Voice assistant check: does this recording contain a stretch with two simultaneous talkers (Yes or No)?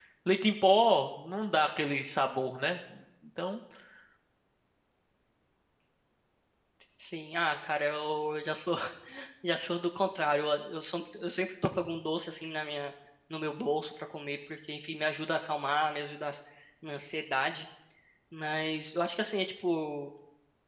No